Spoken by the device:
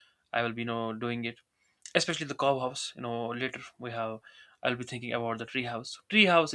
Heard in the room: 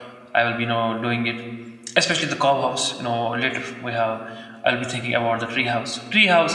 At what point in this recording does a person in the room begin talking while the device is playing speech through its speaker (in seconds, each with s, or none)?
none